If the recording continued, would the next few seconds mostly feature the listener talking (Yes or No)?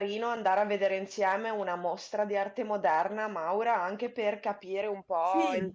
No